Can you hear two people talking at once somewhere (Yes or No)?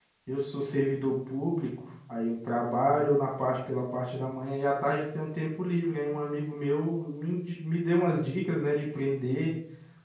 No